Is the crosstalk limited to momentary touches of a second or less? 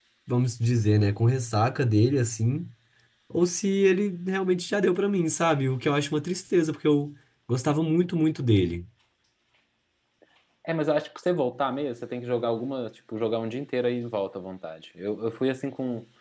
Yes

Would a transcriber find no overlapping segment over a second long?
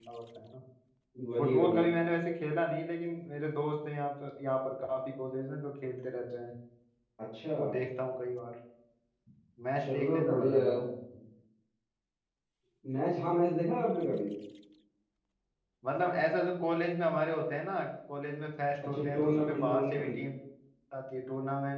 No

